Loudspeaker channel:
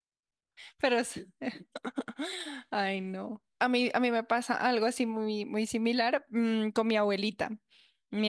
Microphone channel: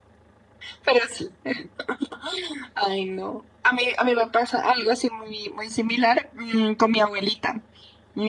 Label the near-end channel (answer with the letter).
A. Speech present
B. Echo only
B